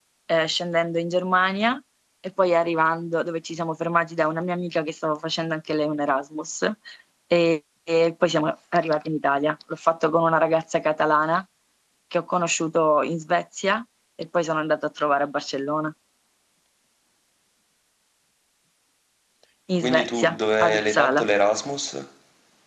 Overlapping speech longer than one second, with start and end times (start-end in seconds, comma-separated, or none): 19.8-21.2